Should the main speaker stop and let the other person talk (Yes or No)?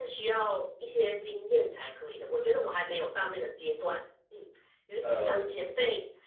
No